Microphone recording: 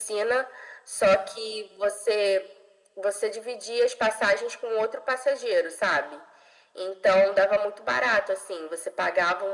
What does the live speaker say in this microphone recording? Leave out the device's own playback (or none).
none